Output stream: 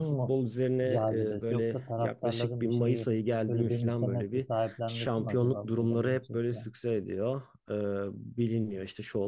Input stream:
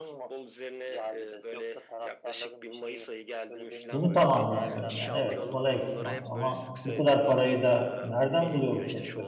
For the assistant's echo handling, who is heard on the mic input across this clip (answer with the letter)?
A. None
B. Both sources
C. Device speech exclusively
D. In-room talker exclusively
B